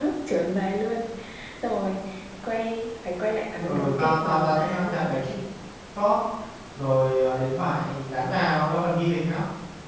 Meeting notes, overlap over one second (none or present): present